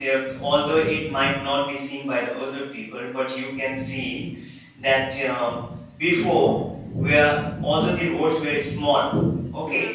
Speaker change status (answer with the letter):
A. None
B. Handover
A